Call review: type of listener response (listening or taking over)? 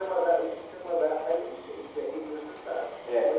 listening